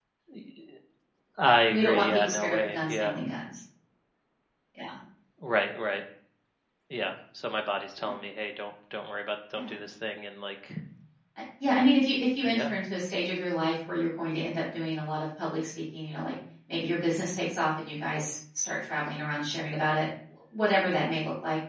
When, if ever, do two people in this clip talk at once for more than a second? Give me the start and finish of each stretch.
1.7-3.1

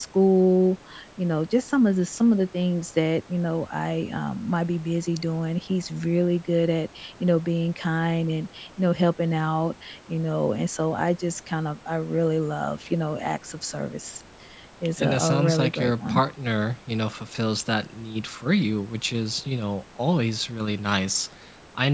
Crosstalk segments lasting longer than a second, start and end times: 15.0-16.2

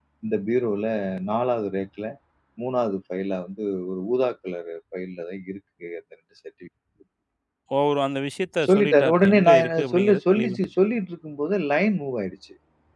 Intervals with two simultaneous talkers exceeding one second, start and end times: 8.6-10.6

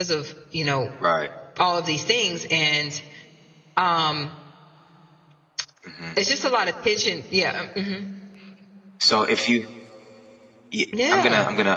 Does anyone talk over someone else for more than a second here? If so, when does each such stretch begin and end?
none

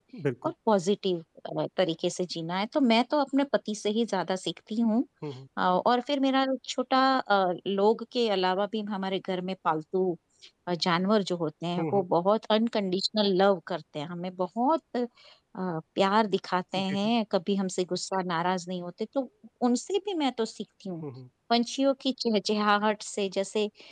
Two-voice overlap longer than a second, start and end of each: none

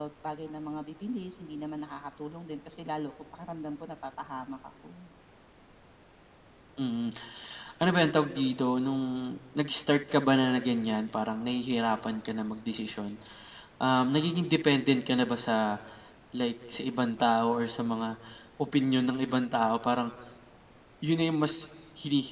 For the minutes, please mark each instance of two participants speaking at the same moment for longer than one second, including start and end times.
none

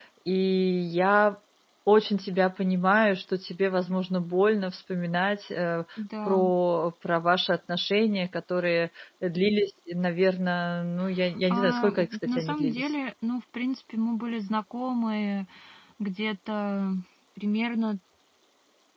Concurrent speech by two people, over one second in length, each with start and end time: 11.5-12.9

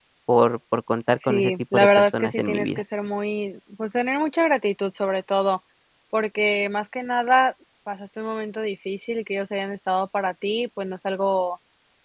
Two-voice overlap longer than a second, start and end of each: 1.3-2.8

